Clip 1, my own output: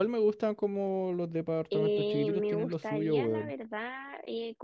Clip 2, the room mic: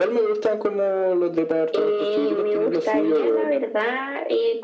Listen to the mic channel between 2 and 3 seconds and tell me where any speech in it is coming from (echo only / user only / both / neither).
echo only